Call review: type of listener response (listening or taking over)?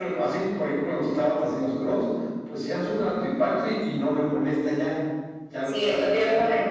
taking over